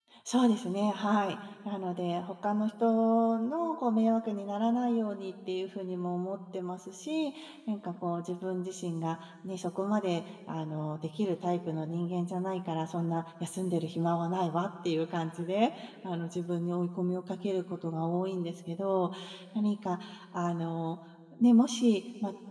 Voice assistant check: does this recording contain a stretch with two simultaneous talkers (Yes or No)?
No